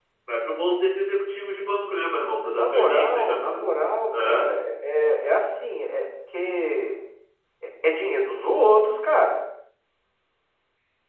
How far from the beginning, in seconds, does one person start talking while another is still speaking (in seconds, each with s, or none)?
2.5 s